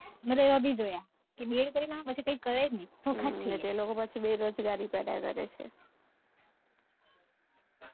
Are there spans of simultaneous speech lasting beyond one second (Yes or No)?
No